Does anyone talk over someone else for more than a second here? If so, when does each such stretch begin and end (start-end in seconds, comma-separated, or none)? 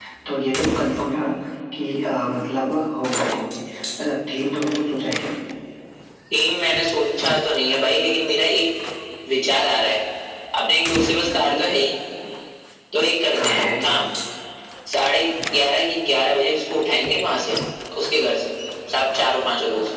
none